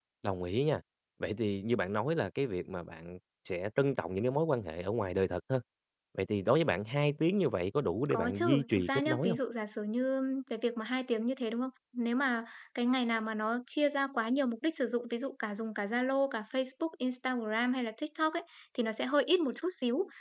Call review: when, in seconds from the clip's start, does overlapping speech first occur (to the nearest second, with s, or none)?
8 s